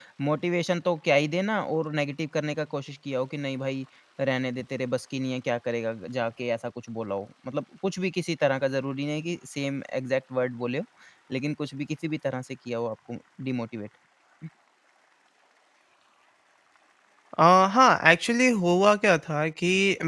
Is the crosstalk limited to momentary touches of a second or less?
Yes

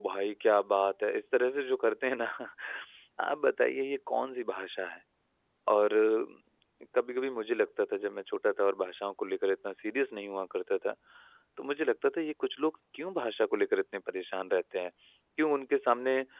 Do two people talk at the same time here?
No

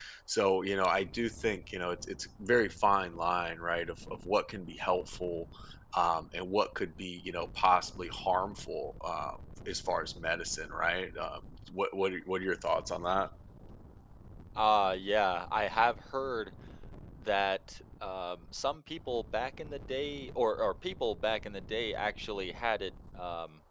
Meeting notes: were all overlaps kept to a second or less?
Yes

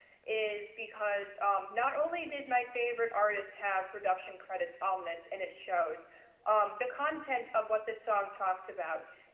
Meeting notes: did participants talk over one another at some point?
No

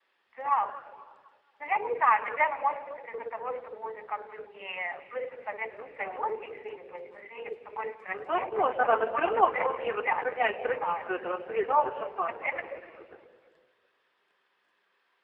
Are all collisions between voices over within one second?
No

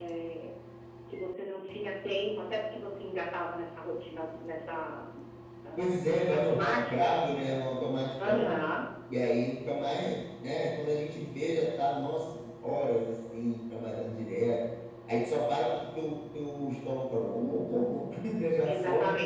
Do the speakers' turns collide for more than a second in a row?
Yes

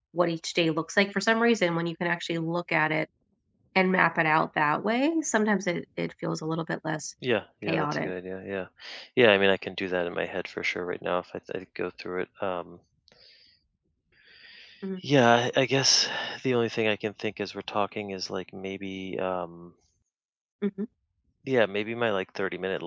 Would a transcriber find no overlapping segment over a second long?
Yes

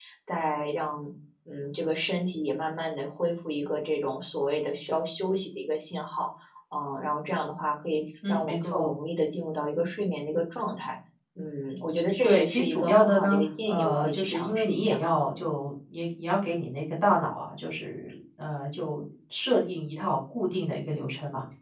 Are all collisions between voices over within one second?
No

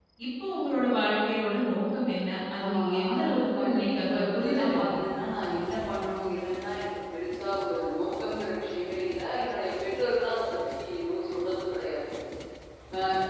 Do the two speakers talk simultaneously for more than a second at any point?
Yes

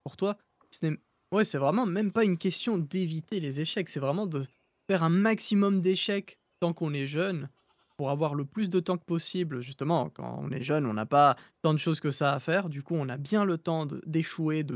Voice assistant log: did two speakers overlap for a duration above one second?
No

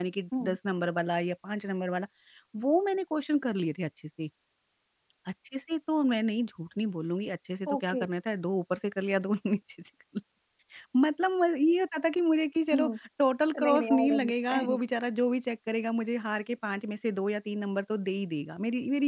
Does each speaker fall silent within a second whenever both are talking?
No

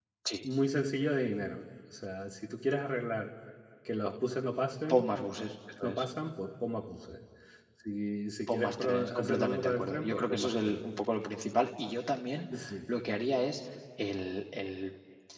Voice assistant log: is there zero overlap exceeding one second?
No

